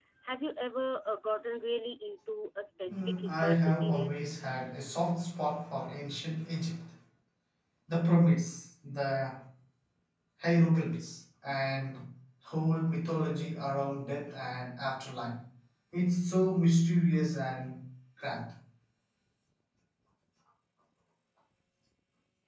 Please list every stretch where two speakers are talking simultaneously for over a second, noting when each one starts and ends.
2.9-4.1

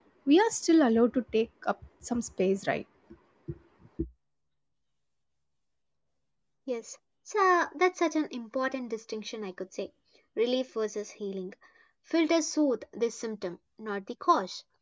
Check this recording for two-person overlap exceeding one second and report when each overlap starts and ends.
none

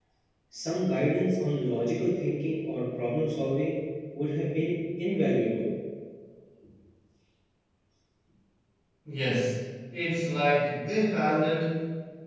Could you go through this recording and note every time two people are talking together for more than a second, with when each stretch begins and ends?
none

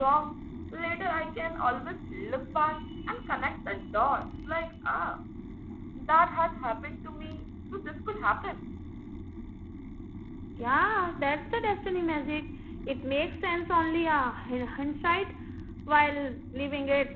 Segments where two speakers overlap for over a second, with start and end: none

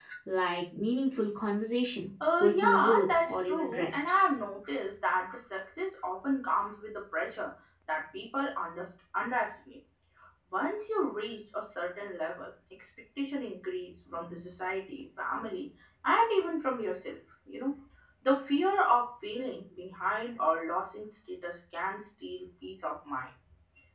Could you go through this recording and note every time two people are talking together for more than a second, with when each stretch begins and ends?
2.4-4.1

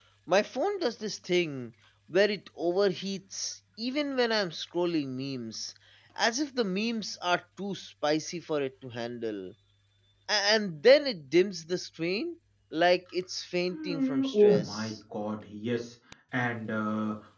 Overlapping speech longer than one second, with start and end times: 13.7-14.9

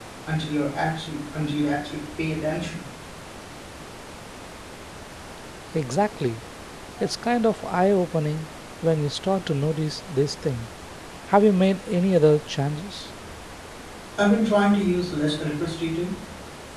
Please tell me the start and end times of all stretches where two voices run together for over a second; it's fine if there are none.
none

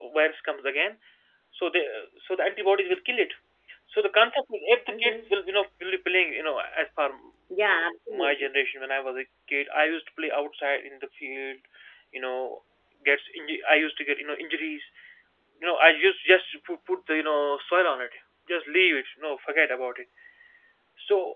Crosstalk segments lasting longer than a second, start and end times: none

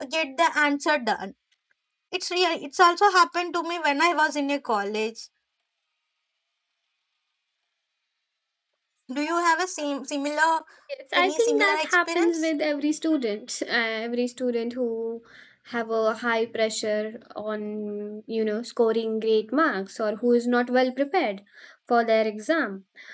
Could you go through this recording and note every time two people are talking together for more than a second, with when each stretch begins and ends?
11.2-12.5

